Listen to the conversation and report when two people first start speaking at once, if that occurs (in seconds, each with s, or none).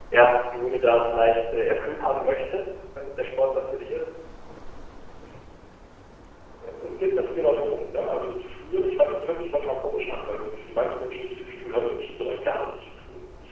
none